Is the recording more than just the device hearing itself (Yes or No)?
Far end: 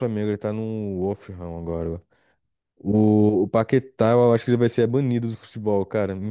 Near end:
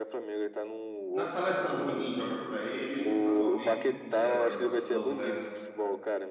Yes